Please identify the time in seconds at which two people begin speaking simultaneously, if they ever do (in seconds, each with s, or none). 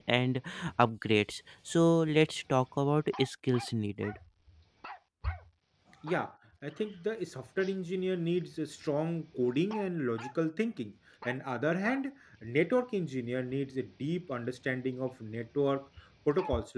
none